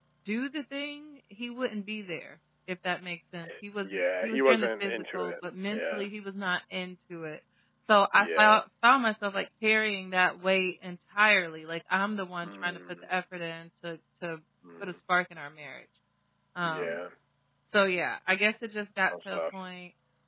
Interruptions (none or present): present